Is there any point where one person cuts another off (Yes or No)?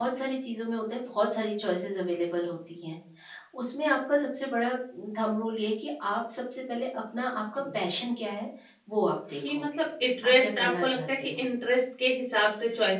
Yes